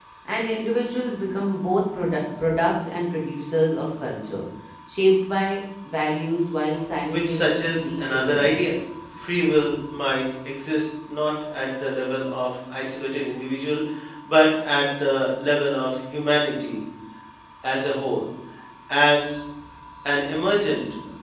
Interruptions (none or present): present